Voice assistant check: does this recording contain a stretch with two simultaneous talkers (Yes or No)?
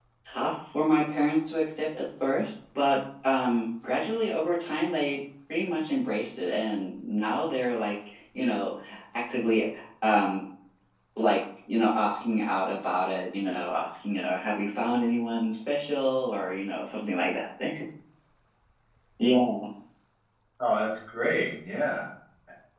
No